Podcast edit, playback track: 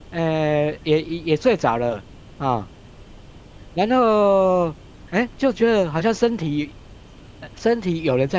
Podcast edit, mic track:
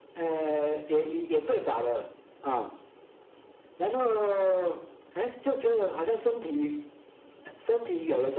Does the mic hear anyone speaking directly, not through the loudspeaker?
No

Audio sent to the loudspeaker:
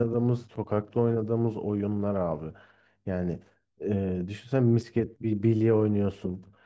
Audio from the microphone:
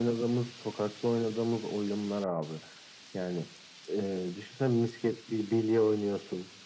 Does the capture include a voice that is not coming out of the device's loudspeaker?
No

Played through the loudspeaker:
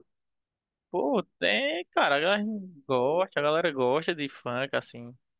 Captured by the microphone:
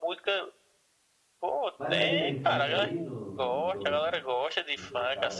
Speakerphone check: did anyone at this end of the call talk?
Yes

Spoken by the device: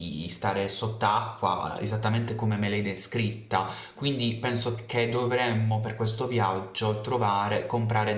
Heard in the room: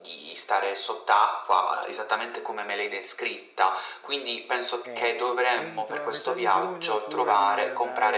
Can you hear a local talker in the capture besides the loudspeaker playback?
Yes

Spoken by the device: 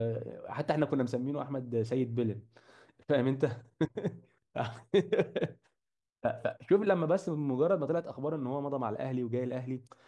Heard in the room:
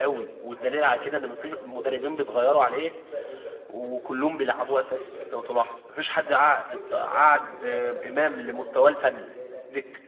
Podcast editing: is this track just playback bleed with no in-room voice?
No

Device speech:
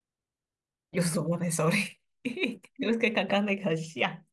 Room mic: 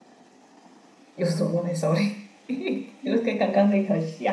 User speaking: No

